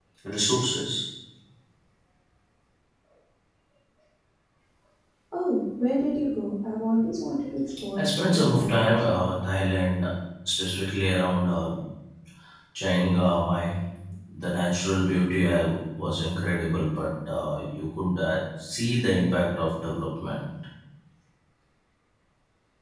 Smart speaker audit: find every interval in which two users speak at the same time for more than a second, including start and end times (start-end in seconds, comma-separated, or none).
8.0-9.2